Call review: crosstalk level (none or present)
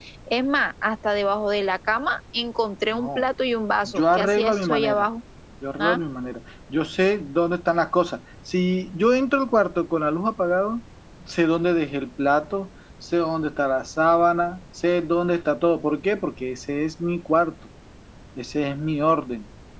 present